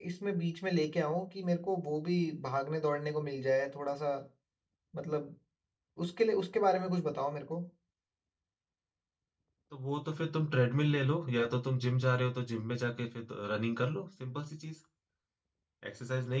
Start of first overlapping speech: none

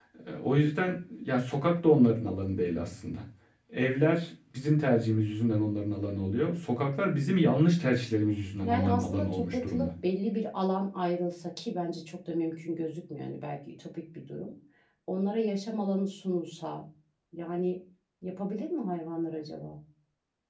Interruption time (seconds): 8.6 s

